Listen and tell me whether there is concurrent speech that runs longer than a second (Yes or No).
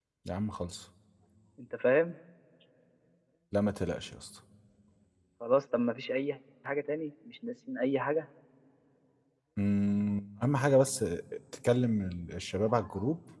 No